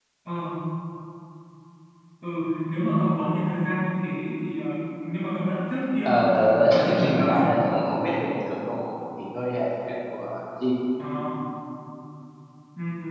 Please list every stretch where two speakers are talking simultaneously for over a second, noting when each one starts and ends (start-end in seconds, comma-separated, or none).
6.0-7.5